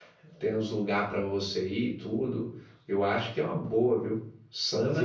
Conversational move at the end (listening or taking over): listening